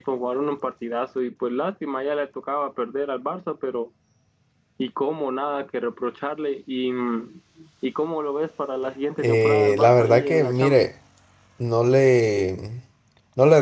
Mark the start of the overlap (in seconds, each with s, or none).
9.2 s